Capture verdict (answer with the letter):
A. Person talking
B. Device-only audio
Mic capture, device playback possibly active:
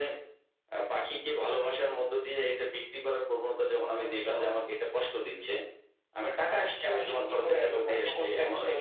B